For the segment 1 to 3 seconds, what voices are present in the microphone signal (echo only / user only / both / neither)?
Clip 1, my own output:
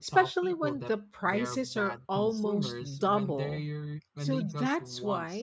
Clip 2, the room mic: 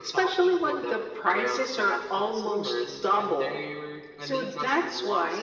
echo only